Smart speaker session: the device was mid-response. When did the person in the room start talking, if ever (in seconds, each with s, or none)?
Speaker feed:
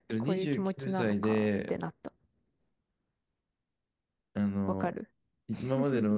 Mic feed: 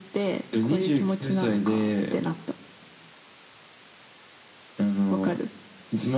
none